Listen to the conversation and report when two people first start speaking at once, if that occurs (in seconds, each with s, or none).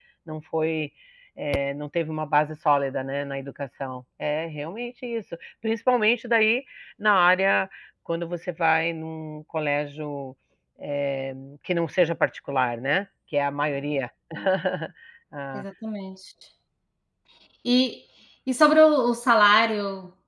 none